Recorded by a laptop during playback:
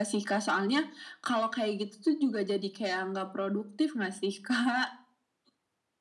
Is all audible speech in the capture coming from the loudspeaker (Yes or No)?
Yes